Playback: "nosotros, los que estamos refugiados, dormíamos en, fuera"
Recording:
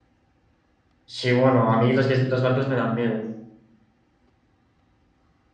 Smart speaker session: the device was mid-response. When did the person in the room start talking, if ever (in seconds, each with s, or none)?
1.0 s